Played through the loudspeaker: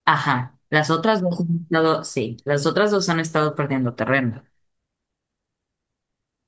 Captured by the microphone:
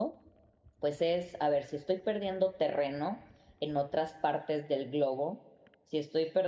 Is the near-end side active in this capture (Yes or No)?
Yes